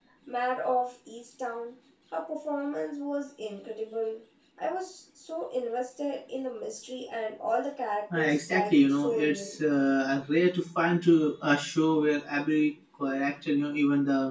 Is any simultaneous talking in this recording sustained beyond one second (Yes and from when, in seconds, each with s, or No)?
Yes, from 8.1 s